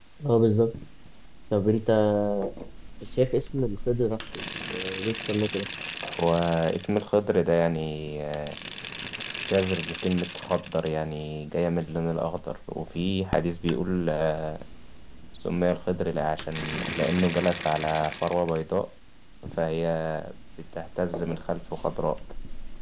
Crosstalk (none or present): none